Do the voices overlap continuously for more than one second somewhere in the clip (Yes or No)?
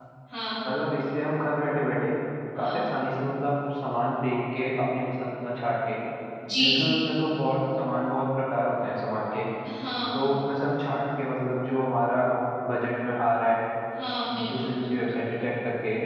No